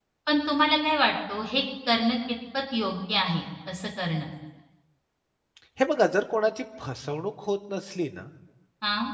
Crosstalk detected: No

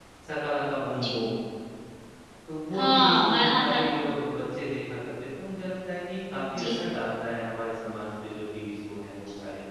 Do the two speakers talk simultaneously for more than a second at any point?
Yes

